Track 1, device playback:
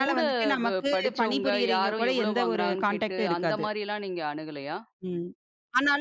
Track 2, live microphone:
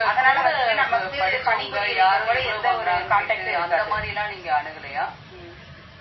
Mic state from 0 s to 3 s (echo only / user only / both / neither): echo only